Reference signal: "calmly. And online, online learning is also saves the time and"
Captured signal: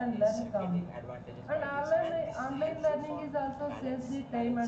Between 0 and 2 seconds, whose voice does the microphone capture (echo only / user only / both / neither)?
both